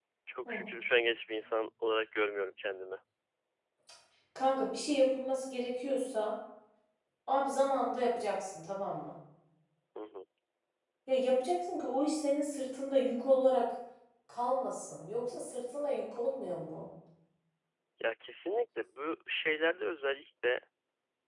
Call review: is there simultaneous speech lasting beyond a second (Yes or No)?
No